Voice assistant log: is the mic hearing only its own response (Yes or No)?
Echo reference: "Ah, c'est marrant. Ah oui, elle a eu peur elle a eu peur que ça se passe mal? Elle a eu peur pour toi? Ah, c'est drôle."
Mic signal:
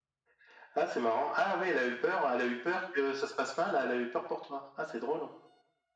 Yes